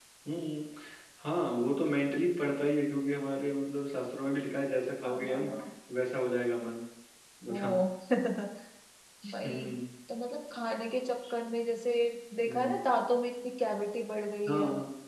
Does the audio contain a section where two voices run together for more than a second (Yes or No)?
No